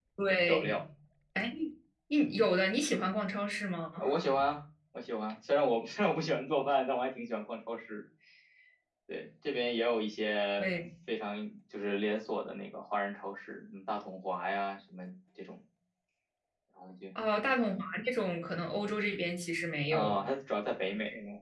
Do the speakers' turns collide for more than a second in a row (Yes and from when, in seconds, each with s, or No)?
No